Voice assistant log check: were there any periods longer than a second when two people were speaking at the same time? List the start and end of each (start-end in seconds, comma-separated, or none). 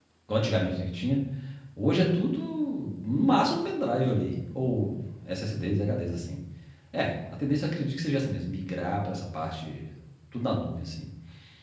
none